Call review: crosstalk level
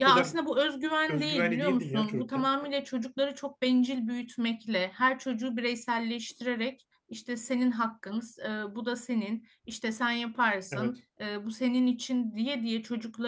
present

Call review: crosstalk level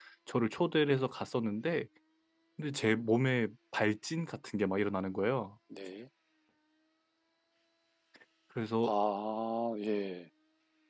none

